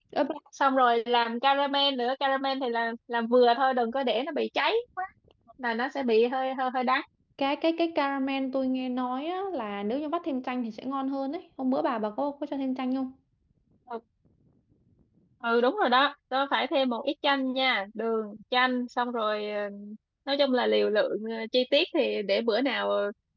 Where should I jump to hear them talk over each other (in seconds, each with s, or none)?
none